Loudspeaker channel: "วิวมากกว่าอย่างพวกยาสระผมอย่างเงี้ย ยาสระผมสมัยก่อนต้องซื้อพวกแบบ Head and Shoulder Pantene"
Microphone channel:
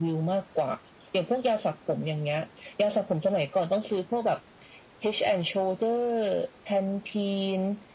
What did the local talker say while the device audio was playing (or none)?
none